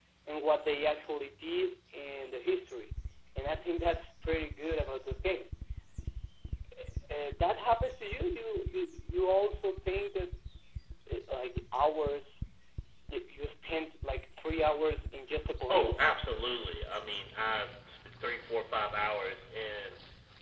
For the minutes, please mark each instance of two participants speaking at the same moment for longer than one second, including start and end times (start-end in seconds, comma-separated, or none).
none